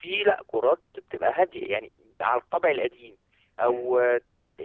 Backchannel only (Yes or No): Yes